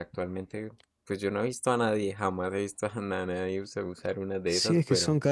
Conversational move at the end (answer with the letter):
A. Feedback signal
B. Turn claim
B